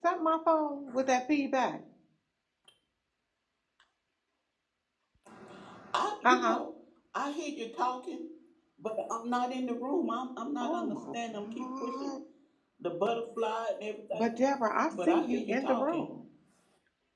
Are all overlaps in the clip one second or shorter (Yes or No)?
No